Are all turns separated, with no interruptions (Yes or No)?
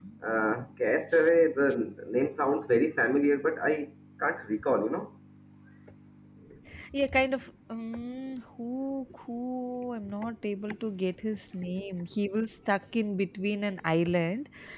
Yes